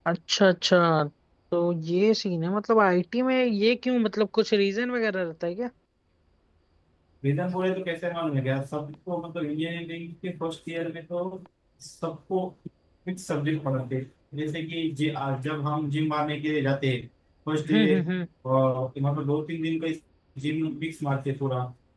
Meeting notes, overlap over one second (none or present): none